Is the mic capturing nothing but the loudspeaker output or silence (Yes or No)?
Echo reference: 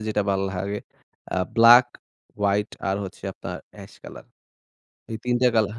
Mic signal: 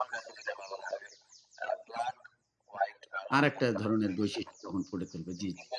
No